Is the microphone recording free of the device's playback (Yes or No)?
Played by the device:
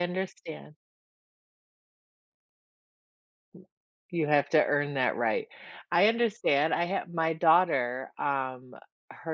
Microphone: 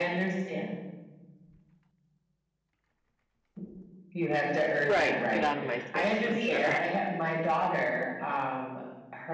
No